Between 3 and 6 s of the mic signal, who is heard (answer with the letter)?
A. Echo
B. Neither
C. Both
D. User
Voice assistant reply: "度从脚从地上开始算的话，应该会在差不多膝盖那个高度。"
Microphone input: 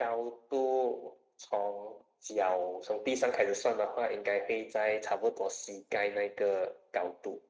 A